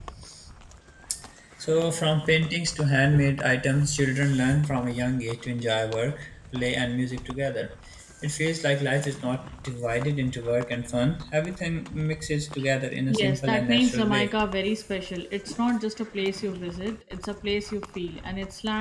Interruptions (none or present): present